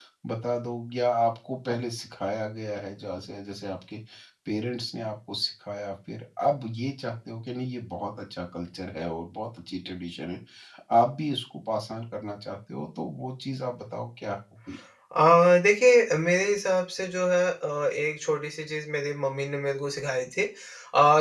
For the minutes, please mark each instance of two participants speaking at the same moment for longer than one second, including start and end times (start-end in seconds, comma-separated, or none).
none